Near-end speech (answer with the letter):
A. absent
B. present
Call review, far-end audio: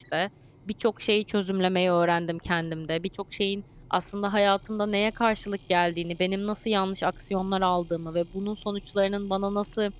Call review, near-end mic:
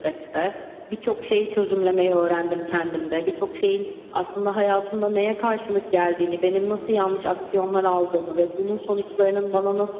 A